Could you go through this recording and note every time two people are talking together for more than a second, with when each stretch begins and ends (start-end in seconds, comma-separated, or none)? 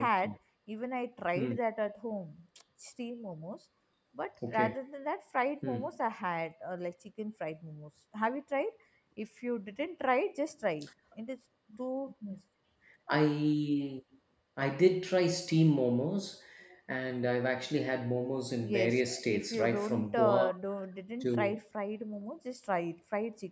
18.6-20.5